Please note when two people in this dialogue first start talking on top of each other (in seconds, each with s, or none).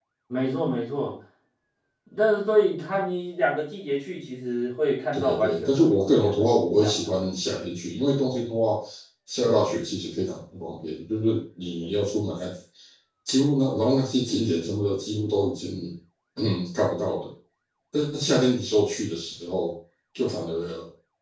5.1 s